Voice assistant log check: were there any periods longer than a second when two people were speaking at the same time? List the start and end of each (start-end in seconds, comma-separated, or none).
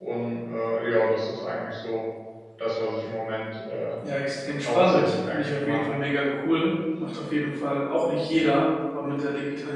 4.7-5.9